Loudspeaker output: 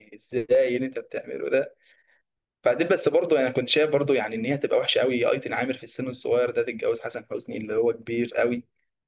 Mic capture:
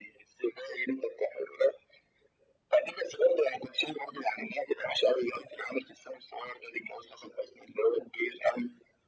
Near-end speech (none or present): none